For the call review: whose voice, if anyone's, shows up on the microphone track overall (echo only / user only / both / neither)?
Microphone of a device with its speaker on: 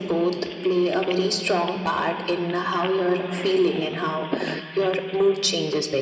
echo only